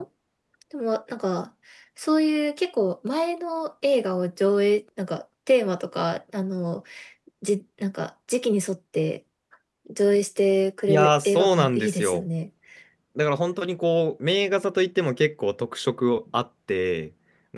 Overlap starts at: 10.9 s

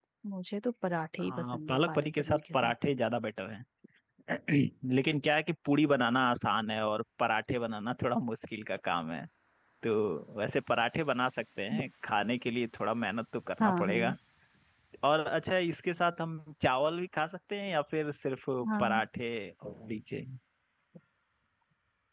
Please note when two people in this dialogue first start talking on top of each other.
1.2 s

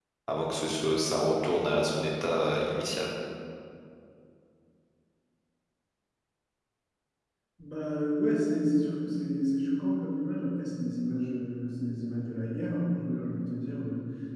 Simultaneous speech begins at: none

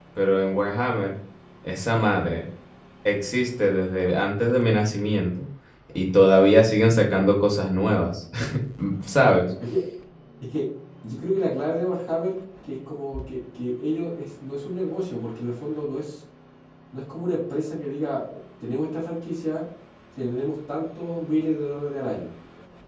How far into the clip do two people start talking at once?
none

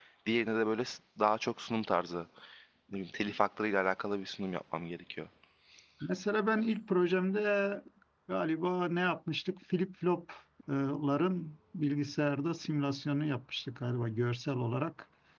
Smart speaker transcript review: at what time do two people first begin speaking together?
none

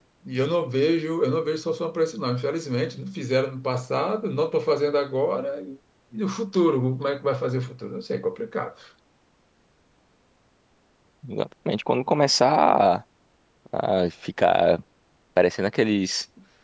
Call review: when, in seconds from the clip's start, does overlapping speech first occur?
none

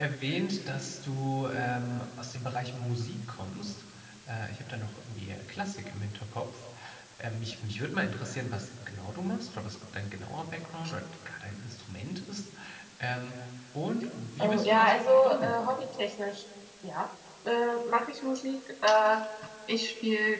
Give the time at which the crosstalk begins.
14.4 s

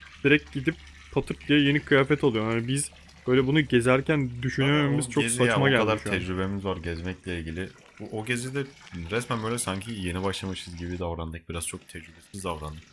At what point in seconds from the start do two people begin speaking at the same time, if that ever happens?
4.6 s

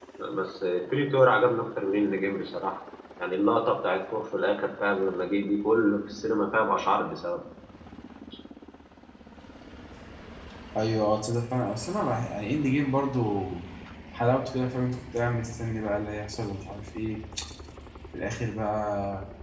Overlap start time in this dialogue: none

